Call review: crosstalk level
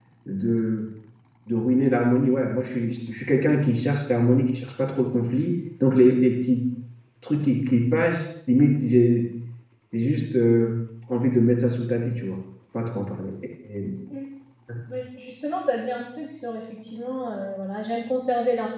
none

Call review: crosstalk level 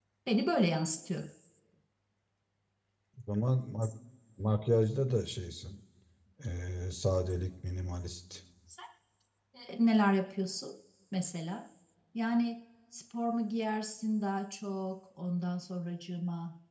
none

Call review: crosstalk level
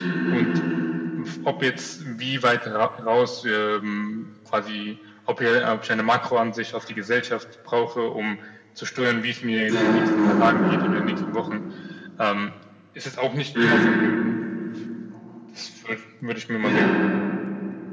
present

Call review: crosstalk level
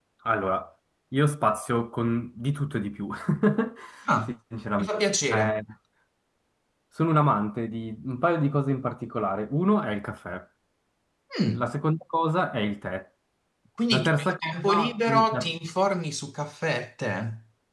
present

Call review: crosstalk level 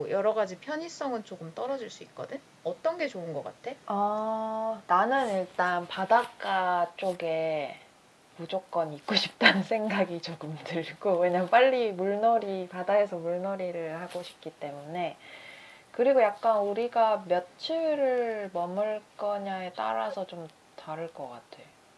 none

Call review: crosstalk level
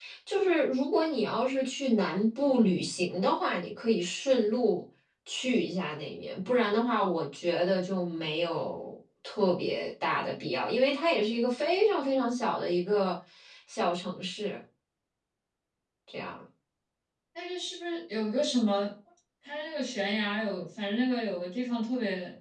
none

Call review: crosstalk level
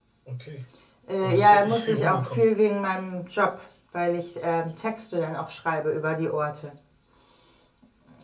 present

